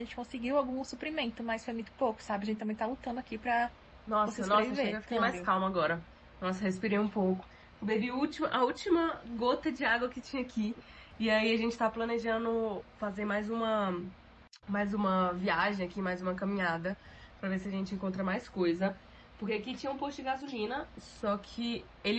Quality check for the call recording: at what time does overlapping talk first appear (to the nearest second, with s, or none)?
4 s